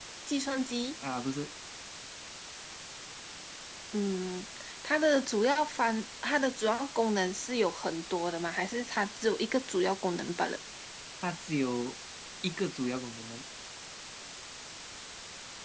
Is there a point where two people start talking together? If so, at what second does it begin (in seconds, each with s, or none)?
none